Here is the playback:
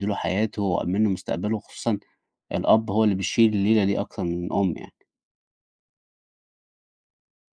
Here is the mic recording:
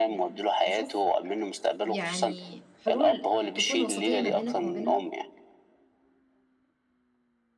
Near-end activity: present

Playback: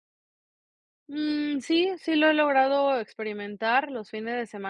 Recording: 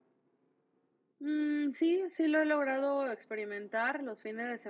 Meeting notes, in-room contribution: none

